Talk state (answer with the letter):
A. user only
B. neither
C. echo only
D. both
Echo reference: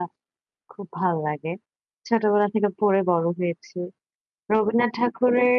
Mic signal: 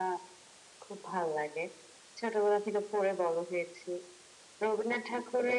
C